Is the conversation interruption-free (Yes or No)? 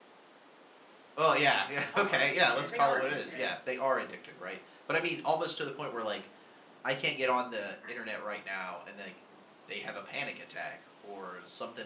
No